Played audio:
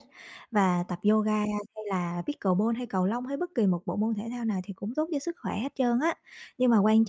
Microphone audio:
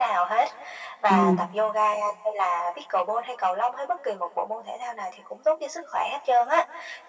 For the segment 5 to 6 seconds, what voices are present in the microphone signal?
echo only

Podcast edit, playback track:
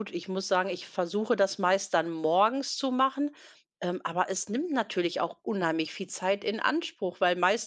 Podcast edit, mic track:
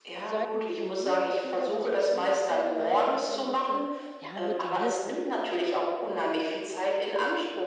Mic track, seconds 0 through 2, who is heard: both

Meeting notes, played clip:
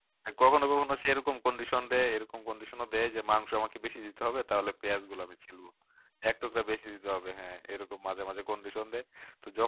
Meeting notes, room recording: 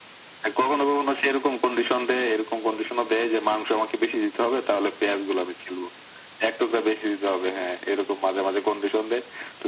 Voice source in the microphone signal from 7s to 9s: echo only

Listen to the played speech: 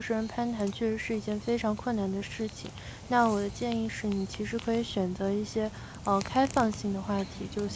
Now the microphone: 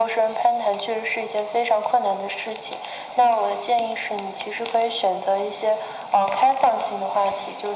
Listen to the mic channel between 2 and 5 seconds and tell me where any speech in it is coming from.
echo only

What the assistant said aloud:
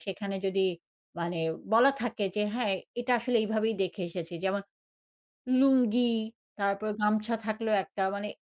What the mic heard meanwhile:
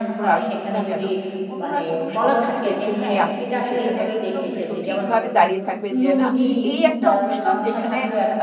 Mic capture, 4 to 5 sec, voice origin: both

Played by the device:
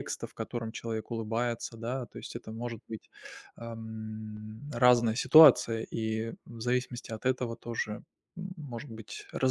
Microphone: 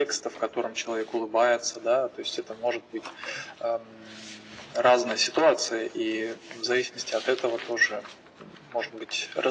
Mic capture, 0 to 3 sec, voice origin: echo only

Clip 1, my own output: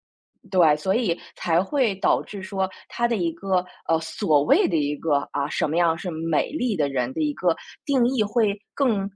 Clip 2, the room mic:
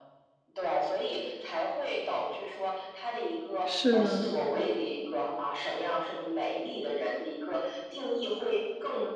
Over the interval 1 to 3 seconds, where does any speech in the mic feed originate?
echo only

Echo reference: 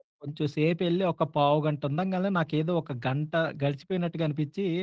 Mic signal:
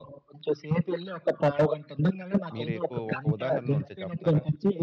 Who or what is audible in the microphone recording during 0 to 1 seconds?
echo only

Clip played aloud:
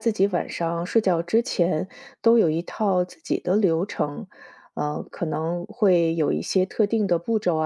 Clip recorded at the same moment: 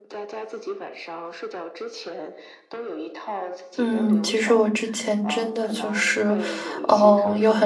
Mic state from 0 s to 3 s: echo only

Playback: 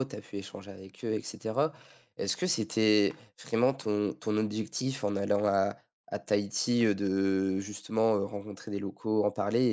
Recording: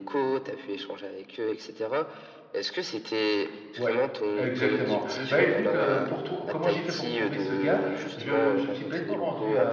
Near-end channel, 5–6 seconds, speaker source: both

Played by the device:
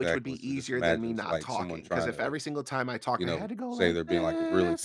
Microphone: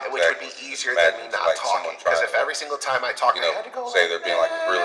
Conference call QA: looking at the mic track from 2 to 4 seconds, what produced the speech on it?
echo only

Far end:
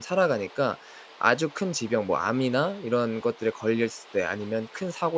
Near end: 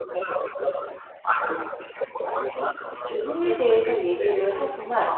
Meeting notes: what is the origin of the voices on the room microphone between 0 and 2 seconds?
echo only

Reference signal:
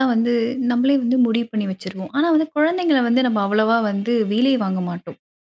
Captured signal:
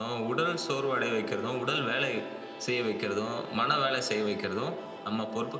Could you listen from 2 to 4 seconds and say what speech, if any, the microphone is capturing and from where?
user only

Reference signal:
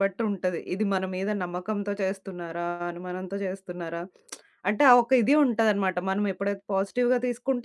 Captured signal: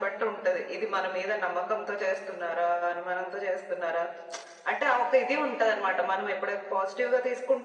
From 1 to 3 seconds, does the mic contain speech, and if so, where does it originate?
echo only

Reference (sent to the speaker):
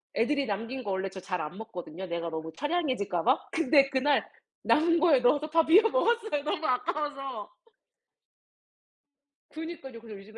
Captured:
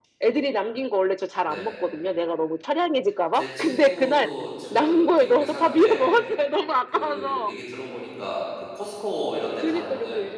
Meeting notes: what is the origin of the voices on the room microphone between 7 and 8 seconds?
both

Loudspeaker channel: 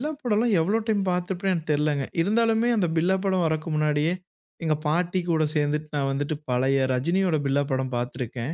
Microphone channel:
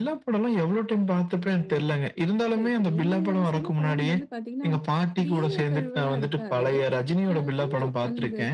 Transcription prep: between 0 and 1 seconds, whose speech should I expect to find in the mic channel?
echo only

